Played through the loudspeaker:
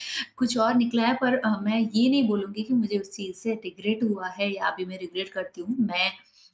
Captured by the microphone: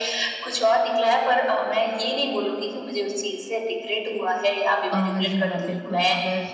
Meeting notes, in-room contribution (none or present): present